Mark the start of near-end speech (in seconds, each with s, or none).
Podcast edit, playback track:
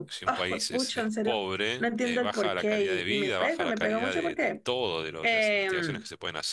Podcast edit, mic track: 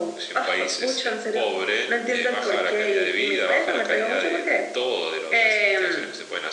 none